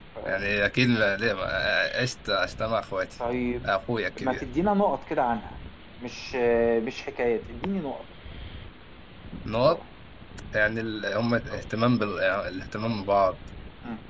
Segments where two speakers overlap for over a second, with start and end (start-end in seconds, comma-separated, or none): none